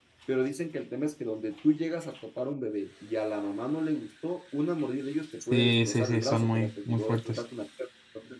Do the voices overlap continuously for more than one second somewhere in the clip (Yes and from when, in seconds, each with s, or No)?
Yes, from 5.5 s